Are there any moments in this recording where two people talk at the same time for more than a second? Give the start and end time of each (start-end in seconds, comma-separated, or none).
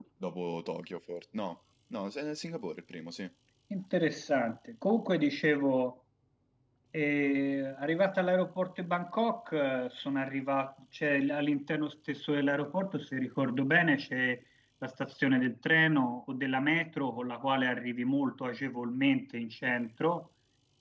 none